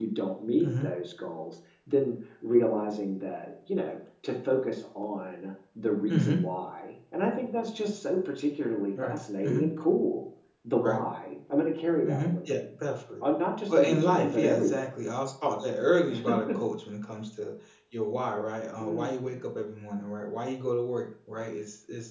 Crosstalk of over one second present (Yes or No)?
Yes